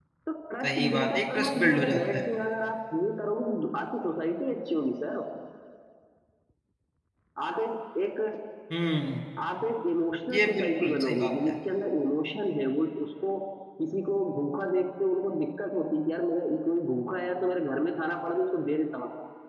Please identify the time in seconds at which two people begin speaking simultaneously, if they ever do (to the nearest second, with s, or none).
1 s